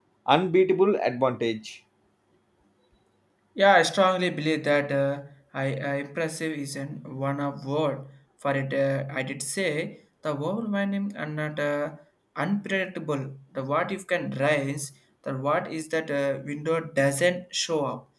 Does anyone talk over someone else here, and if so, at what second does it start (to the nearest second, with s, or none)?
none